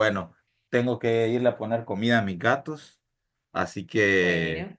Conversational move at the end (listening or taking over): listening